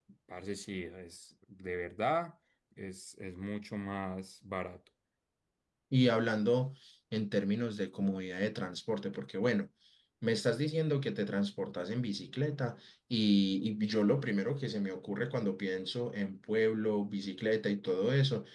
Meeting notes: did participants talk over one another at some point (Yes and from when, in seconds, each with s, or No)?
No